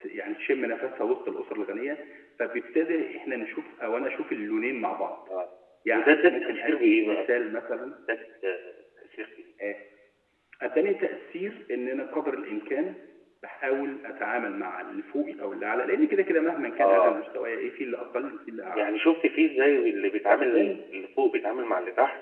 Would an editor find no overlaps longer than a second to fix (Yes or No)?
No